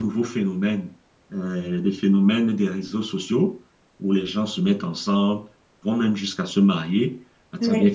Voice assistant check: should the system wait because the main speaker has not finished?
Yes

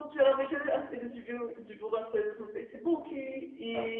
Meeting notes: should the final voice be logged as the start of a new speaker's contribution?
No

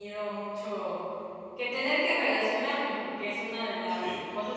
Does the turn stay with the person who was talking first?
Yes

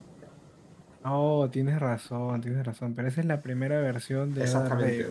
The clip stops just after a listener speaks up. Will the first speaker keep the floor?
No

